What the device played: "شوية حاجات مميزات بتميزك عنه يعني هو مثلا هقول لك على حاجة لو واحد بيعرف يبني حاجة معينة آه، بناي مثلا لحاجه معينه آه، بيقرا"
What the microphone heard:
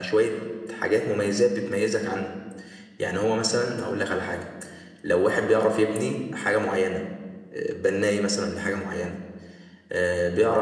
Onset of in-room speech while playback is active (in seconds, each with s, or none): none